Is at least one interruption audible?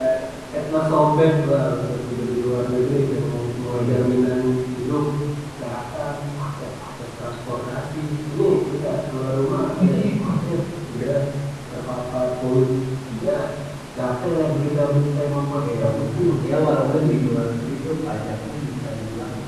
Yes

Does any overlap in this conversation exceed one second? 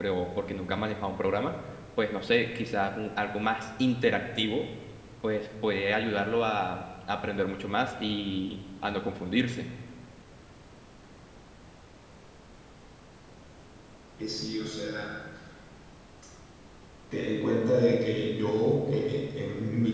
No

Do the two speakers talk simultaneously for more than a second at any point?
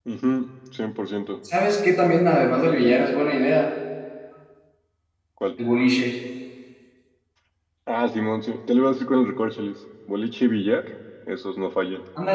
No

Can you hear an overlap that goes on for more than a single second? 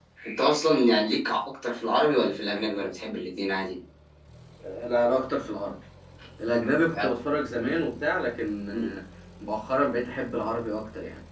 No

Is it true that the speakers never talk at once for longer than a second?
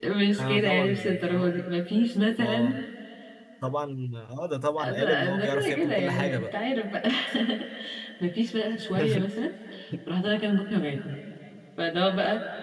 No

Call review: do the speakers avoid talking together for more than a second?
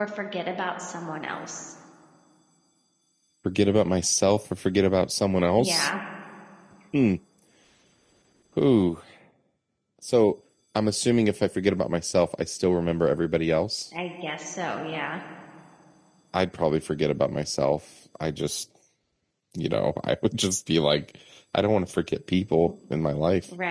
Yes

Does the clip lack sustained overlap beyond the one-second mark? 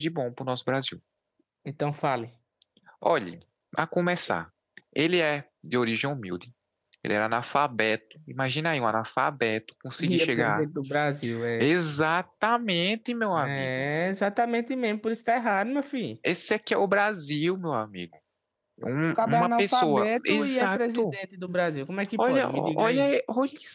No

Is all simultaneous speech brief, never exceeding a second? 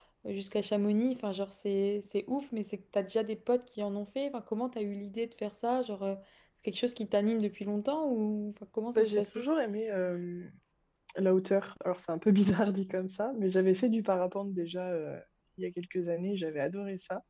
Yes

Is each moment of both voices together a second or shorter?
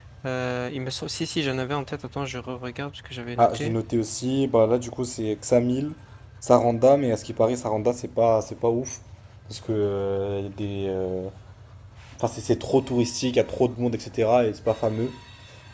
Yes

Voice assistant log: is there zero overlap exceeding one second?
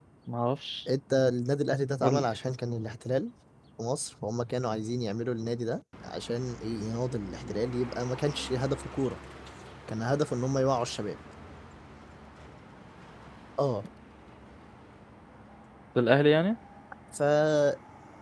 Yes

